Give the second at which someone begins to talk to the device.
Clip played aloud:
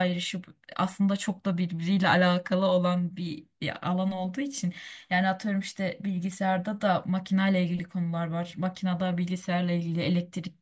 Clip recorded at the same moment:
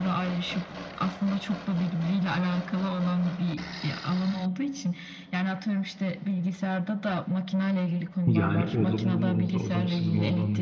8.3 s

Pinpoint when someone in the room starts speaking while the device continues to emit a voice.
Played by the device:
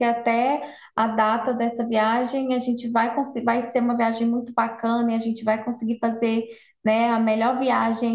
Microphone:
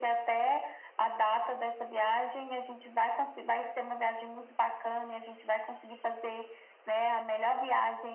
none

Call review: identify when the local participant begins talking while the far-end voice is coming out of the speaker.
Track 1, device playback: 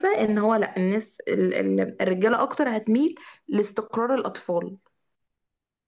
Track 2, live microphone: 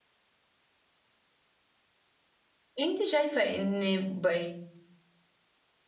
2.8 s

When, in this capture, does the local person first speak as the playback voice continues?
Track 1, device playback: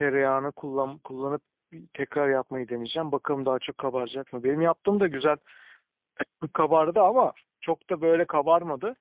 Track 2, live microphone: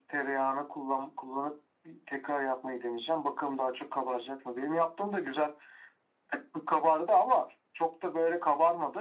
none

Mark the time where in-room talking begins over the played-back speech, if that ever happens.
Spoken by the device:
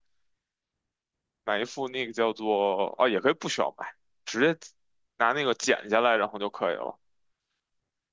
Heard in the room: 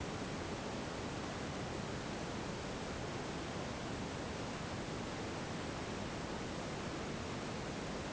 none

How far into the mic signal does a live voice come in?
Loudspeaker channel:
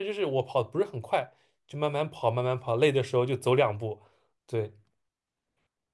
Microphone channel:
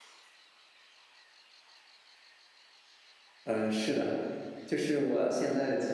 3.4 s

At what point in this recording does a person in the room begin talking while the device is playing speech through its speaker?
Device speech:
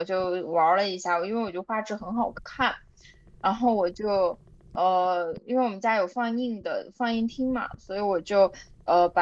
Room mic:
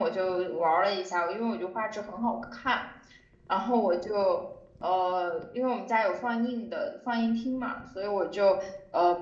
none

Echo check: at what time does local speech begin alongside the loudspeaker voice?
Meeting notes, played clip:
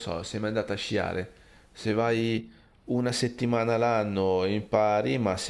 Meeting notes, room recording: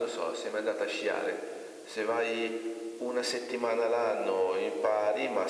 none

